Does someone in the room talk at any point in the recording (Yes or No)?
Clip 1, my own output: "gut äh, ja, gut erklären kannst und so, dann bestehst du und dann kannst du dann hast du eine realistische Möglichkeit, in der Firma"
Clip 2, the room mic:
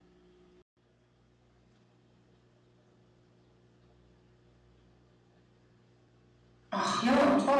Yes